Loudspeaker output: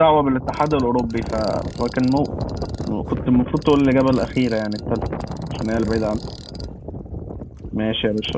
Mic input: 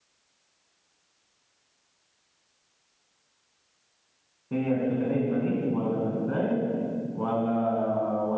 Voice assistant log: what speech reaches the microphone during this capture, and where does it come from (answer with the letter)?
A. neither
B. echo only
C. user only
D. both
C